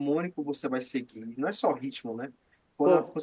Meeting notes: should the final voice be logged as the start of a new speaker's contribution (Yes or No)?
No